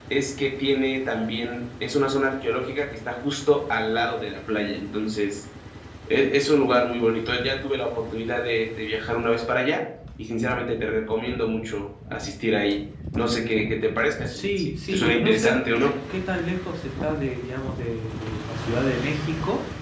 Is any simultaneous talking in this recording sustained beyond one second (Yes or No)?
Yes